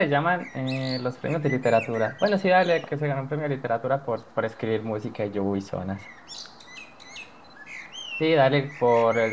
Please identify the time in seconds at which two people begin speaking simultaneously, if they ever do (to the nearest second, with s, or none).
none